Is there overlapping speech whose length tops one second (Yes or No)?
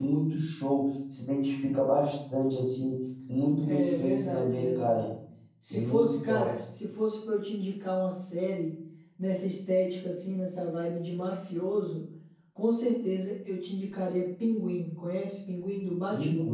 Yes